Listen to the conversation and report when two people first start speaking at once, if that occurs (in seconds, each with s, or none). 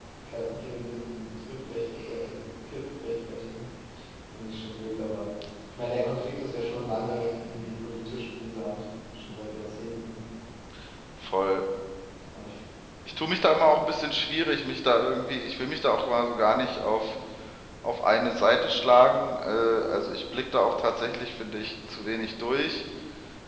none